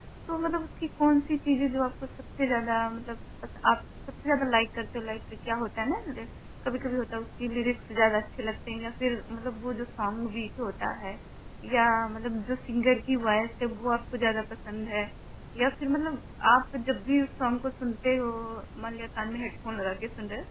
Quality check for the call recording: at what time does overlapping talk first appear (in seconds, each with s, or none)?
none